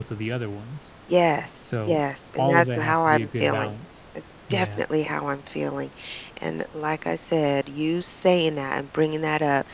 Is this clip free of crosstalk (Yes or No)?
No